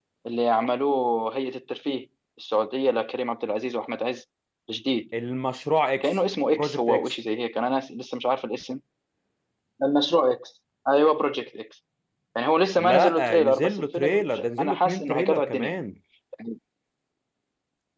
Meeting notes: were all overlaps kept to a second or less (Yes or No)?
No